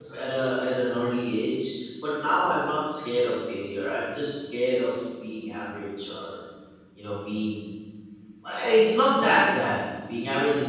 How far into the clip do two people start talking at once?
none

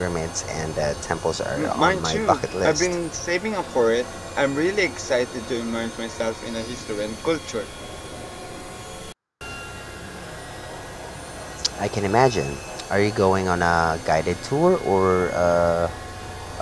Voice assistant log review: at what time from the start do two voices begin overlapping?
2 s

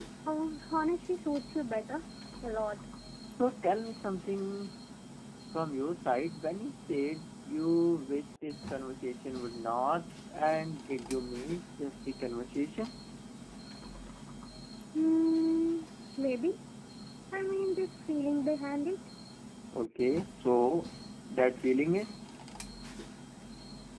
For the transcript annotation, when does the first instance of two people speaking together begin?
none

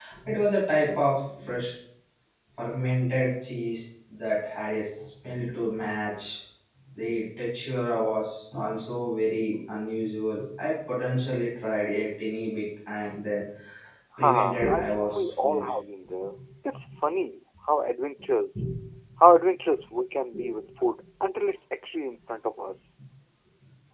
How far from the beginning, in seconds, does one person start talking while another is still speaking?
14 s

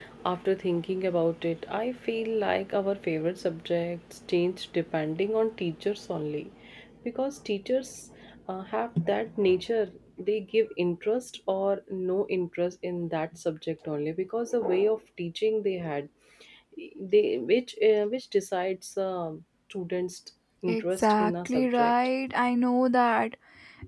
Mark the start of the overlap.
21 s

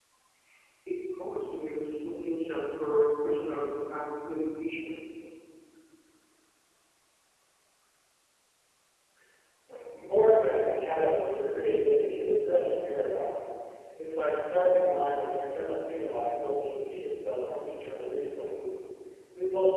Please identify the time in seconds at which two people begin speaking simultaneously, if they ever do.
none

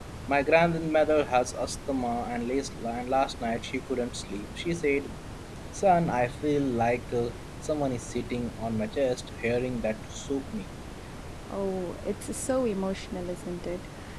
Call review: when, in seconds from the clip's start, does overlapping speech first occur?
none

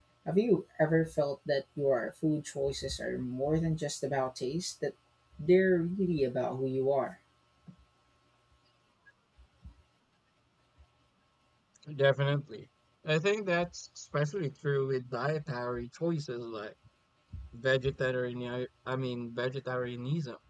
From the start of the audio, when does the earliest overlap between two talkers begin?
none

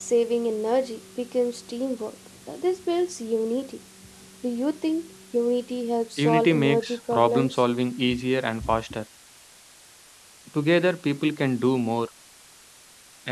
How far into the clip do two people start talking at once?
6 s

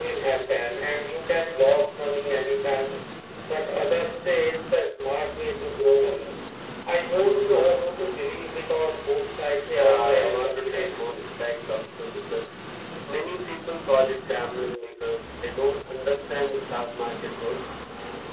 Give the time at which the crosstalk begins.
10 s

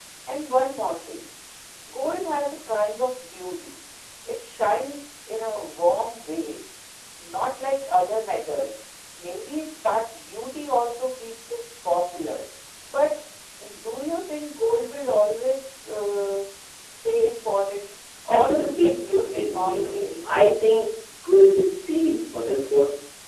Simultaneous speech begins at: 18 s

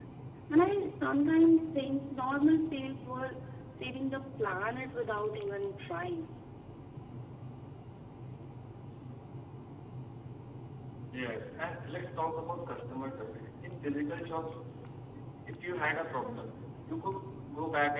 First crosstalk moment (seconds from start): none

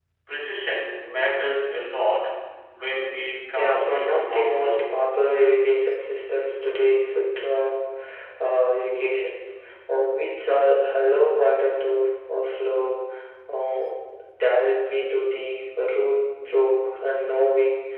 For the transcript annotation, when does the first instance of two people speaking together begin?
4 s

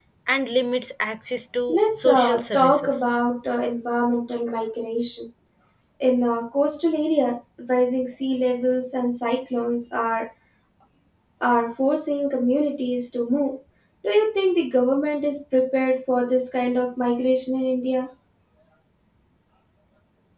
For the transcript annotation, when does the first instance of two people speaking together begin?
2 s

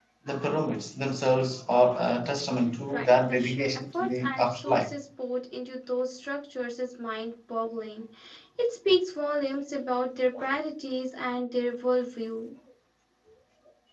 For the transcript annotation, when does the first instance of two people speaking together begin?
3 s

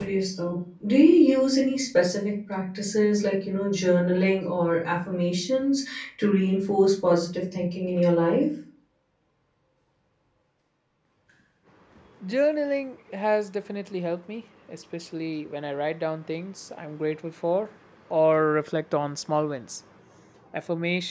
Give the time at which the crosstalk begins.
none

